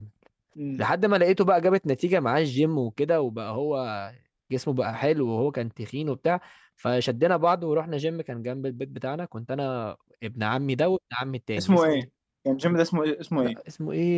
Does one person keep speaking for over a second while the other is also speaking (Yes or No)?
No